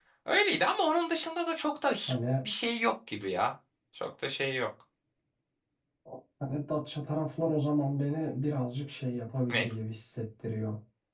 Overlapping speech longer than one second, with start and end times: none

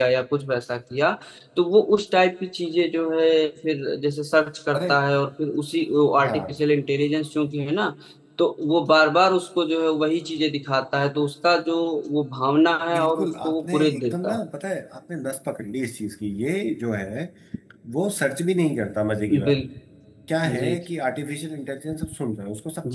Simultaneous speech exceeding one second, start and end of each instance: 12.9-14.4

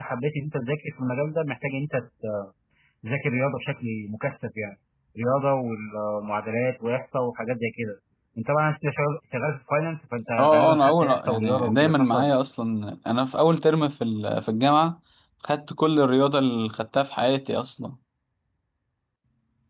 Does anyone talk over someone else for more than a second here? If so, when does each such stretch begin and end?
10.4-12.4

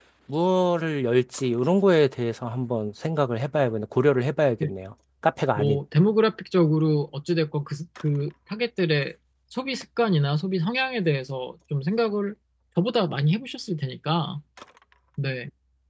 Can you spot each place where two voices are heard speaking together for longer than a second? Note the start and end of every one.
none

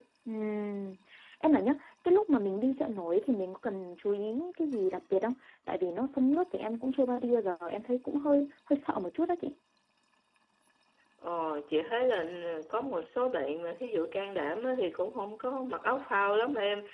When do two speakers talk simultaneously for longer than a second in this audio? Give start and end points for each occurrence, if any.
none

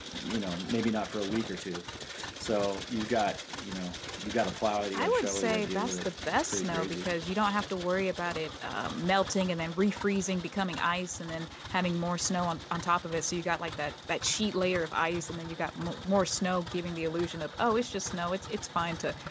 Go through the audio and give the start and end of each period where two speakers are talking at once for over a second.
4.9-7.1

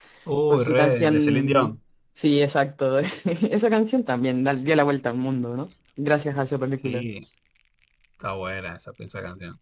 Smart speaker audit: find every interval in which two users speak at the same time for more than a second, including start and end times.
0.5-1.7

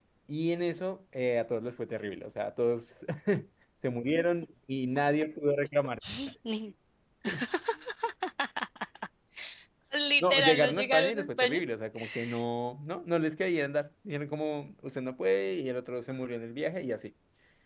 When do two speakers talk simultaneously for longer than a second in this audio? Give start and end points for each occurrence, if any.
10.2-11.6

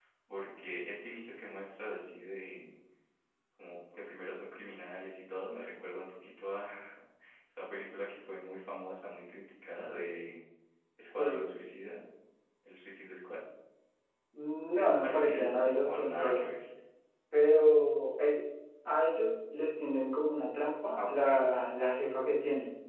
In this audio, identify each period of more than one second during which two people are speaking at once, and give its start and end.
14.7-16.4

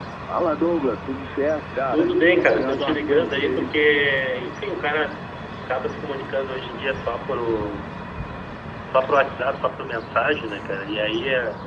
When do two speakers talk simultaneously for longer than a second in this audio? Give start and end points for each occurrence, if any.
1.9-3.7

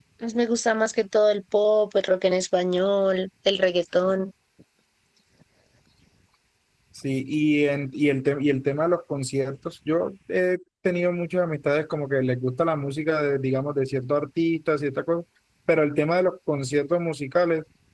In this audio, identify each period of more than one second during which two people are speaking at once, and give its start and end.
none

